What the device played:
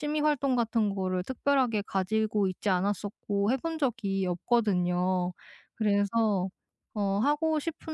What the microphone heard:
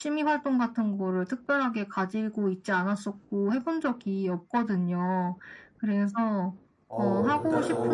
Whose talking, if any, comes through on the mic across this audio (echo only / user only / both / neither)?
both